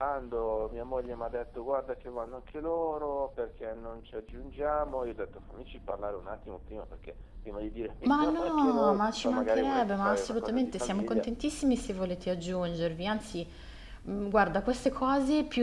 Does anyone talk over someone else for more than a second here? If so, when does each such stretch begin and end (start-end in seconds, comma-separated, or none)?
8.1-11.3